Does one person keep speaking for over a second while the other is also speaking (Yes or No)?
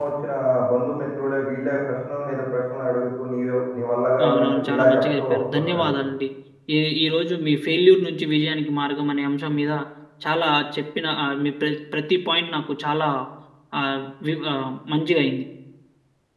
Yes